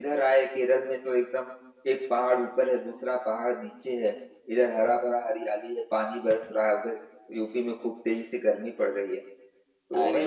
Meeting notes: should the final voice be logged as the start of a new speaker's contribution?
Yes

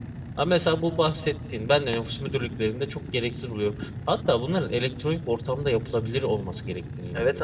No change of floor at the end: No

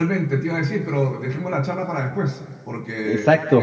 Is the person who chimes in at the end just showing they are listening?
Yes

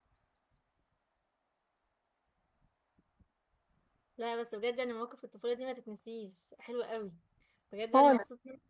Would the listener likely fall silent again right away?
Yes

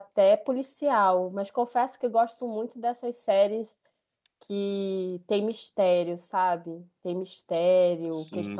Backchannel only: Yes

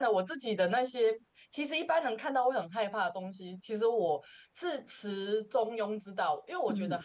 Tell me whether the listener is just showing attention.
Yes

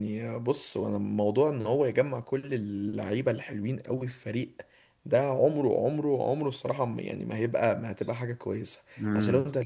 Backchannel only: Yes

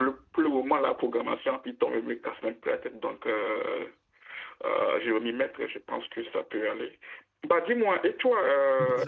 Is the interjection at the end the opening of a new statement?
No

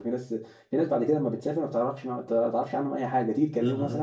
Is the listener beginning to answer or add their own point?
No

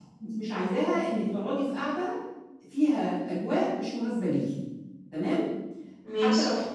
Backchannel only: Yes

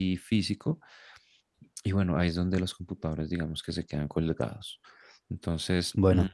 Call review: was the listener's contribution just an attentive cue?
Yes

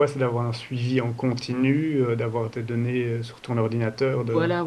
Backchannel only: No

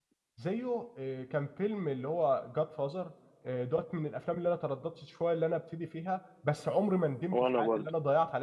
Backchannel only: Yes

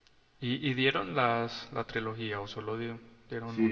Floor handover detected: Yes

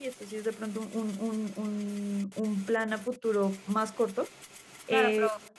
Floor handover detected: Yes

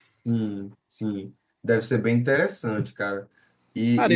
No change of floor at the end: Yes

